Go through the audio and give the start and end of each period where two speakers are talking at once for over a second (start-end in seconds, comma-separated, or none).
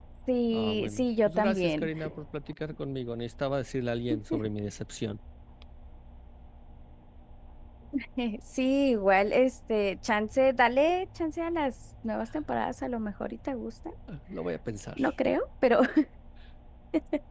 0.5-1.9